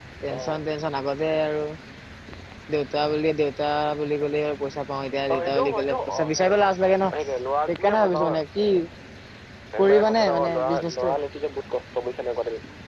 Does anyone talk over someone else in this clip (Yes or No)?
Yes